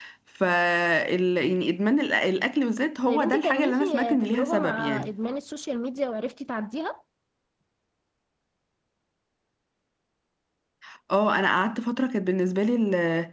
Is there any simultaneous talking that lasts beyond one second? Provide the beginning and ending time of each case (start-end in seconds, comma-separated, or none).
3.1-5.1